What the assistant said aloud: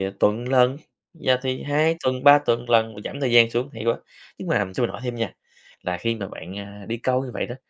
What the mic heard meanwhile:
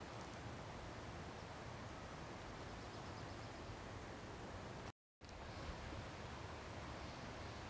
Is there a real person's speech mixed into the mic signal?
No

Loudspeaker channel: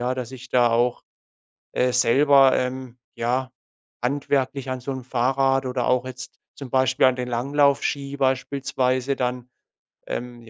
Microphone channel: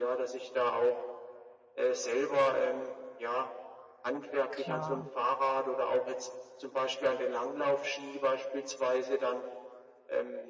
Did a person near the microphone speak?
Yes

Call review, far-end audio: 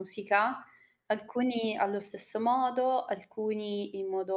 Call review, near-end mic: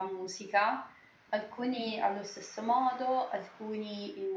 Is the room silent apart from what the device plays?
Yes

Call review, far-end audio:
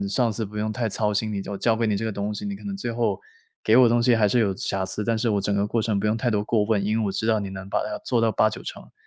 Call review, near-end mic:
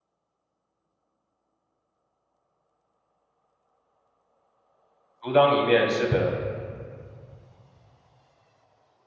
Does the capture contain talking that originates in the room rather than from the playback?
Yes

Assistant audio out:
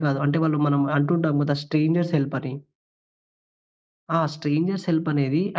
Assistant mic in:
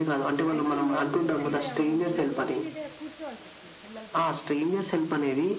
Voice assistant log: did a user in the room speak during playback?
Yes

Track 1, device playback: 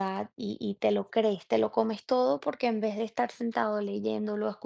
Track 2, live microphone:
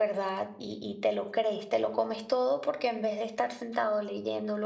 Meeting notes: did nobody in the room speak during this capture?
Yes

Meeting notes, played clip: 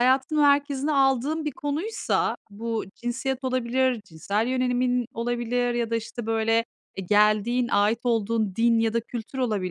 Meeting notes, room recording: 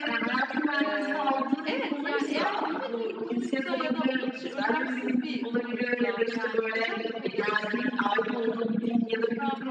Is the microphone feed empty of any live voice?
No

